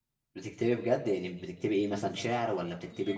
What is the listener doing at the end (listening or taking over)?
taking over